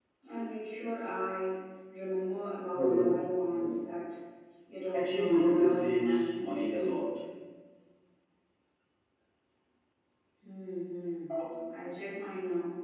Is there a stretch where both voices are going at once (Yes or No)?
Yes